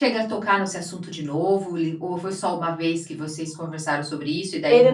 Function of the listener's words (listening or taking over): taking over